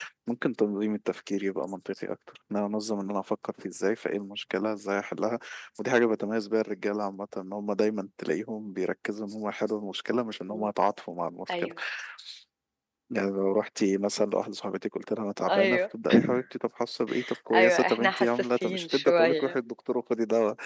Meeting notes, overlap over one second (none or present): present